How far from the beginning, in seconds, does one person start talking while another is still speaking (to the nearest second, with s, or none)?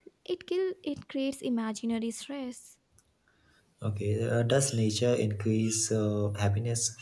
none